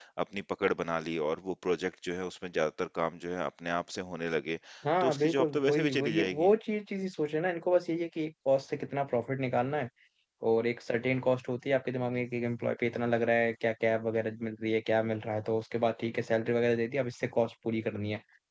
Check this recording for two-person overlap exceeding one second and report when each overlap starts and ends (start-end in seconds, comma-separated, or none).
5.0-6.5